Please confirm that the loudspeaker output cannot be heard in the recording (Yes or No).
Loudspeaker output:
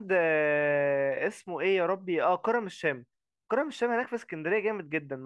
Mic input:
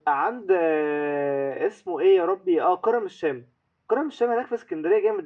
No